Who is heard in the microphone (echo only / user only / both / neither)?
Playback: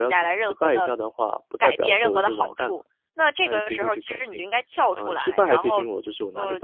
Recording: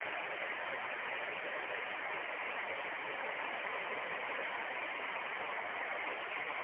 neither